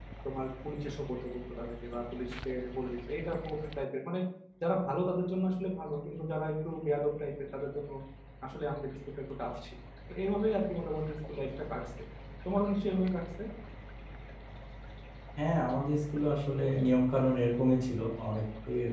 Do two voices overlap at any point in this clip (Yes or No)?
No